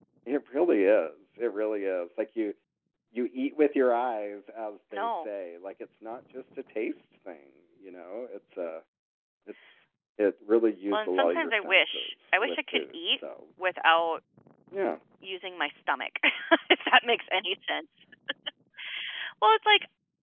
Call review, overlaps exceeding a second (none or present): present